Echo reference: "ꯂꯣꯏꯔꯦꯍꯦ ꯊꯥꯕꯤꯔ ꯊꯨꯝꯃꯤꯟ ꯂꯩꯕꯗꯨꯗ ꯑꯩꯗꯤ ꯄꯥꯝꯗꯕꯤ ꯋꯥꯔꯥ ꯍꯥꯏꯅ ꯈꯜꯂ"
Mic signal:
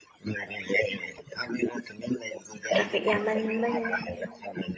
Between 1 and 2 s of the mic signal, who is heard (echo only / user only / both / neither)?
echo only